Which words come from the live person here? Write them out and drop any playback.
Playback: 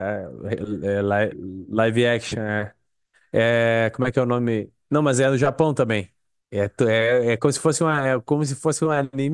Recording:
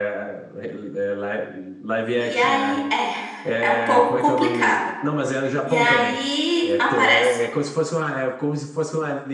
E aí, é, é um pouco complicado. E aí aparece.

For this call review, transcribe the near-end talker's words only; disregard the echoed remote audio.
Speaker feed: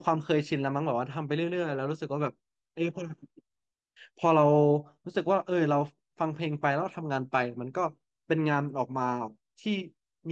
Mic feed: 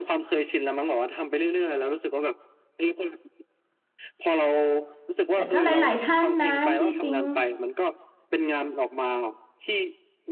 แต่ก็หลายๆท่านนะที่ปิ๊ง

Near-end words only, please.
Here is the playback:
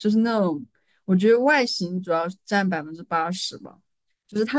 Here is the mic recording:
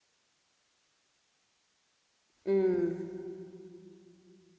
嗯

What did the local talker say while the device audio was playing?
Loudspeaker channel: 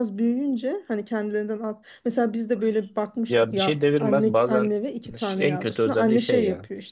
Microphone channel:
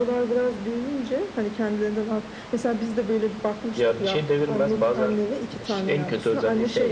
none

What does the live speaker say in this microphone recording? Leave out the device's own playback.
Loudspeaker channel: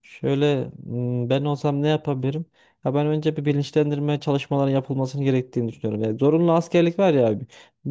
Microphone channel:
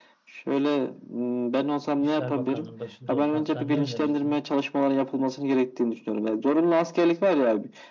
İşler Bakanlığı'nın başında olsan sen ne önerirsin?

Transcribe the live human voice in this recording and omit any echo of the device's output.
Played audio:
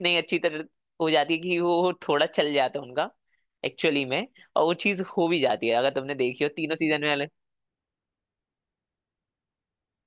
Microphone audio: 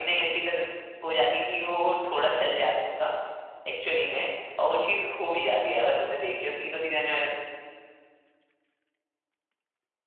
none

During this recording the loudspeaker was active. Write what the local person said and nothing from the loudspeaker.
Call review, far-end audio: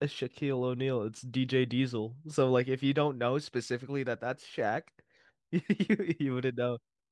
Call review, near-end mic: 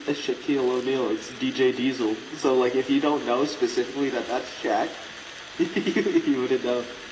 none

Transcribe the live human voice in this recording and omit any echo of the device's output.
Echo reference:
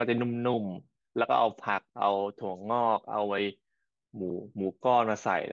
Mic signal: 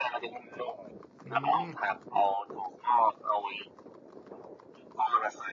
อืม

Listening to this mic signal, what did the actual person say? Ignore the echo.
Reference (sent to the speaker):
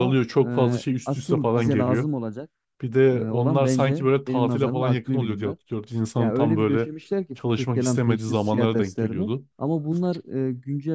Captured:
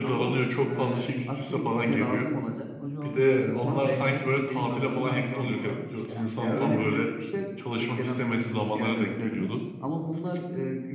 Hoca onu dörde çekerim diyor. Dersin önemine bağlı olarak işte hani 5'e de

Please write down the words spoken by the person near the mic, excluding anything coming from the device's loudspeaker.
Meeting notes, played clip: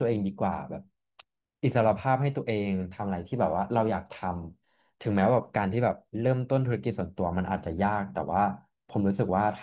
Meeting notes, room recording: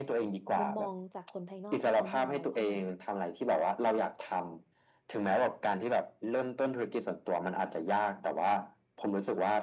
มุมมองจากคนภายนอกที่เขามองเราเข้ามา

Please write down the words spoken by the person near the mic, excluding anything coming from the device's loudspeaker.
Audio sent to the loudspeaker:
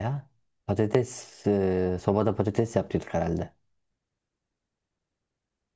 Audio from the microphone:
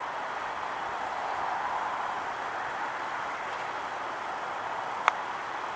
none

